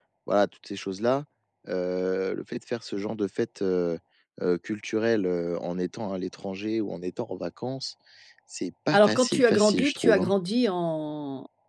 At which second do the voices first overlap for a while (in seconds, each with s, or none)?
8.9 s